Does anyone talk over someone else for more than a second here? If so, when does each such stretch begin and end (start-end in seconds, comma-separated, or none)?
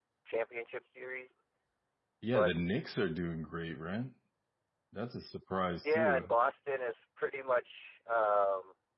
none